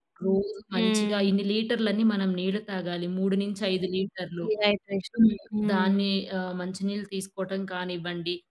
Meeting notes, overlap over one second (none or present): none